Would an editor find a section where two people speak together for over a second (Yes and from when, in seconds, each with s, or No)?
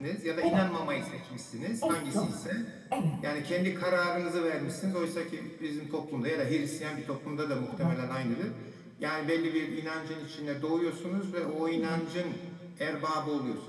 No